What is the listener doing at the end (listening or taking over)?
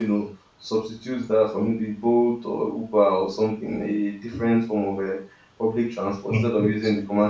listening